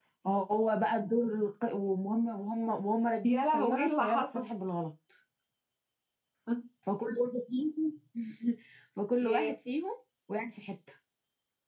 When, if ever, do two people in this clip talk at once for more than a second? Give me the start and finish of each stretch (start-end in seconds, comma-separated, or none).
3.2-4.5